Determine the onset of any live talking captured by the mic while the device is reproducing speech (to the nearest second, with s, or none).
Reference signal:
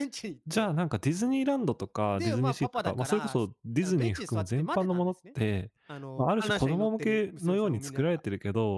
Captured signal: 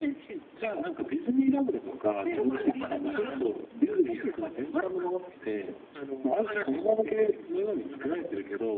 2 s